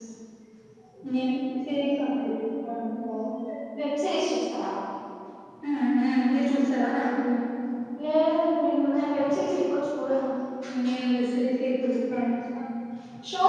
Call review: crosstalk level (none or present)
none